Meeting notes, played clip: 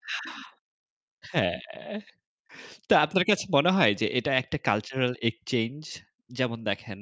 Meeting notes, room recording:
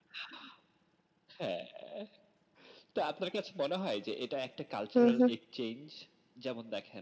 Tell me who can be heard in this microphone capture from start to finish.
both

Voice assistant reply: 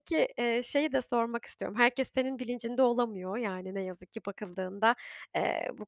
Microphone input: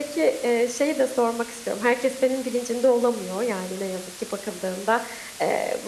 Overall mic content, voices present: echo only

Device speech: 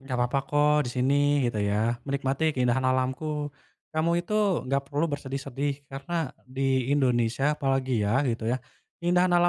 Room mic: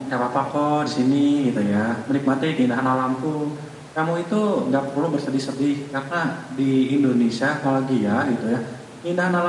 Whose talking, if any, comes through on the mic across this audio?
echo only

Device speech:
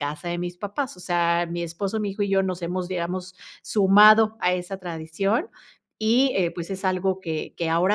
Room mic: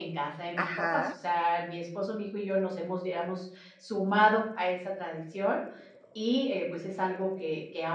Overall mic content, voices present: both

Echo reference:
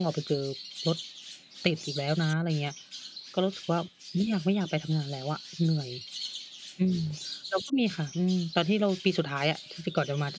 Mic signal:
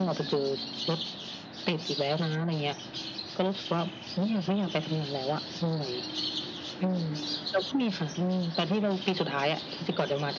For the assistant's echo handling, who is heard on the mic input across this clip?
echo only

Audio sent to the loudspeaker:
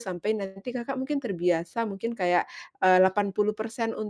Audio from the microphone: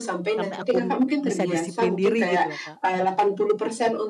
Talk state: both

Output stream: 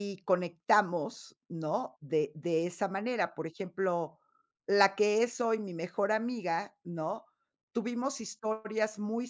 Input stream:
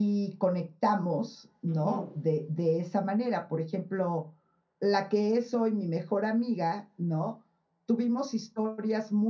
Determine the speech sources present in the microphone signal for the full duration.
both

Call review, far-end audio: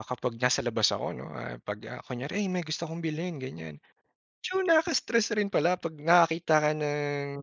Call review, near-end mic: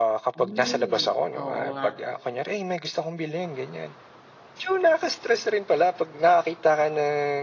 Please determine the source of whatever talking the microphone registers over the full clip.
both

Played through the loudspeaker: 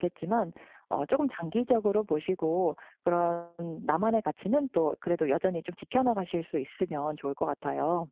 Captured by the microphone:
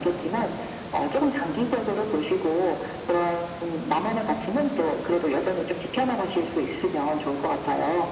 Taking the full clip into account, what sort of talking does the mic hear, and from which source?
echo only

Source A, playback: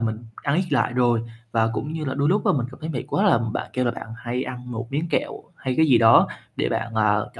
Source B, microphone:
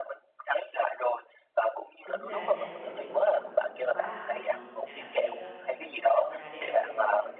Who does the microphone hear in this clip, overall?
both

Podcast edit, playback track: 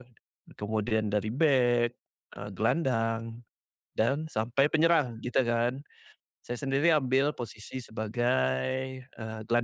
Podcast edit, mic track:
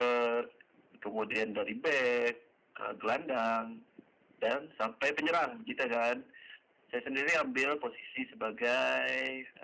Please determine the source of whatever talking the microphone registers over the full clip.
echo only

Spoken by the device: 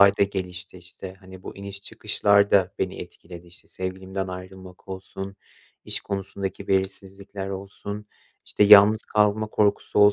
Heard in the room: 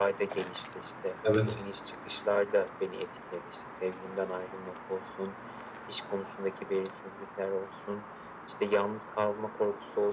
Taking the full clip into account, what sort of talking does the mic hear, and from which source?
both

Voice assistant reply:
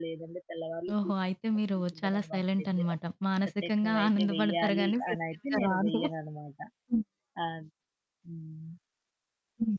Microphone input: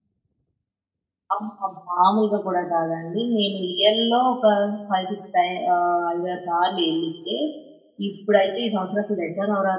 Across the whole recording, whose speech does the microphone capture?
user only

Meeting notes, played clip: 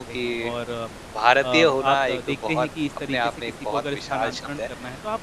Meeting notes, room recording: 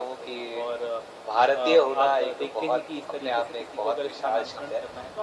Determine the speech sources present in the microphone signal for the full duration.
echo only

